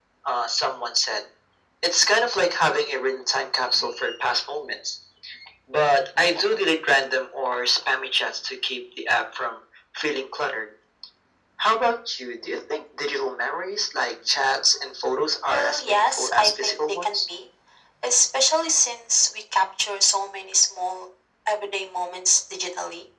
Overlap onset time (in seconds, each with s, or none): 15.5 s